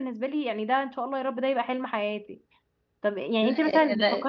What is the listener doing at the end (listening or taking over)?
listening